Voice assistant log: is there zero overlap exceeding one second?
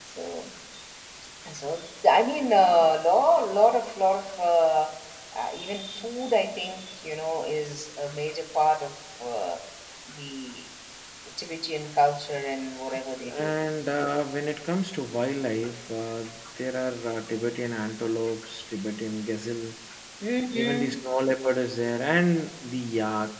Yes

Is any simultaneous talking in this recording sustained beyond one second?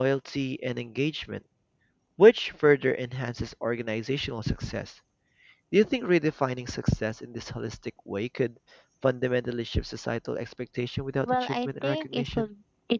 Yes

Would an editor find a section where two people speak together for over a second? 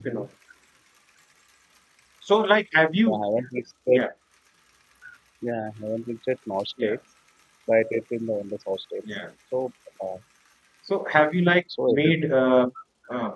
No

